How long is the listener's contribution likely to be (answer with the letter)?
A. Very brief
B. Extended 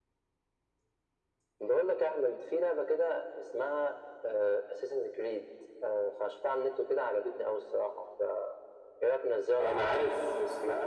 B